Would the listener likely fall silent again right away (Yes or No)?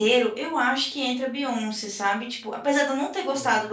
Yes